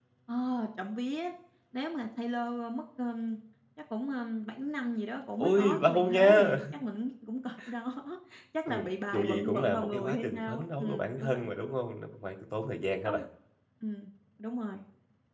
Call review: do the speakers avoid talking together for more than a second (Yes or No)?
No